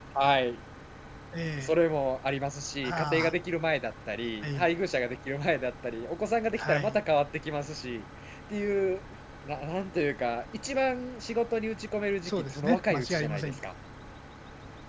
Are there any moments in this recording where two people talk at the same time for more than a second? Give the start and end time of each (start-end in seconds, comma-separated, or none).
12.3-13.5